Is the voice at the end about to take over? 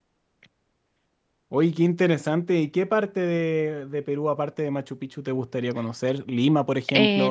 Yes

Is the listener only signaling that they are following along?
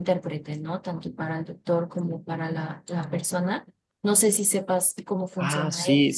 No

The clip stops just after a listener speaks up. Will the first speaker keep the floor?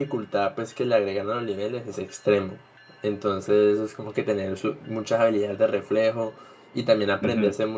Yes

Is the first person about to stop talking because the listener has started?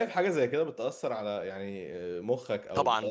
Yes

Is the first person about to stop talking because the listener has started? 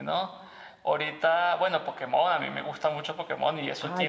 Yes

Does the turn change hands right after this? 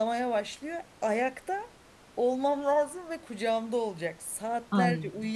No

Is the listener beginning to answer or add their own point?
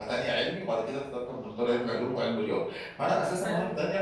No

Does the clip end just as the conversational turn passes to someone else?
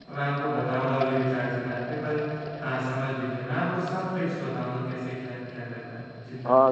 Yes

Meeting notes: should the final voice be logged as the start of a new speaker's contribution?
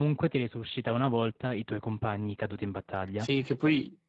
Yes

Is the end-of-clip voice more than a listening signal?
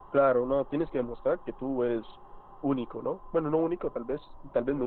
No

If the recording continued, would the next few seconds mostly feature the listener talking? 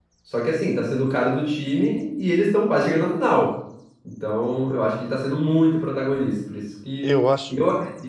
No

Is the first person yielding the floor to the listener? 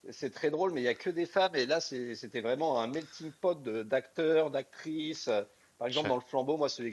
No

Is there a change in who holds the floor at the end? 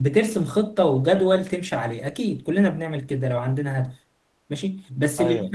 No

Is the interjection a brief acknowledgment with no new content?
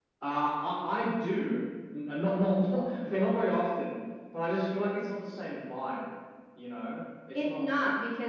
No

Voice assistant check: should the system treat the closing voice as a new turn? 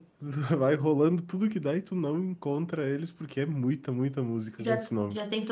Yes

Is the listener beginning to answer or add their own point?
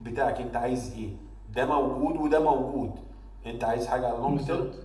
No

